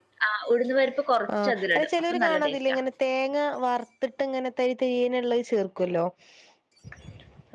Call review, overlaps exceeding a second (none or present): present